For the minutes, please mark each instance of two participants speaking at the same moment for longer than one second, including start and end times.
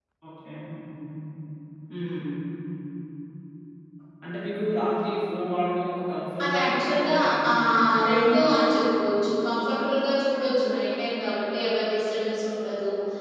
6.4-7.8

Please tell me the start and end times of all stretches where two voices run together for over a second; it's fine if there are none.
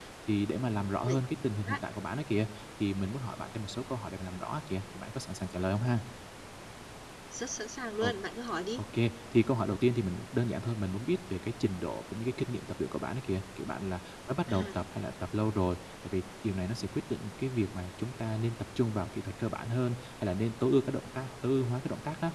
none

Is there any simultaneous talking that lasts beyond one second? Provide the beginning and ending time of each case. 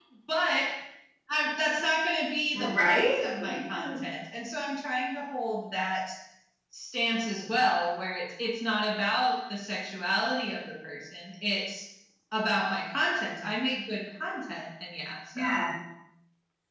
2.5-4.0

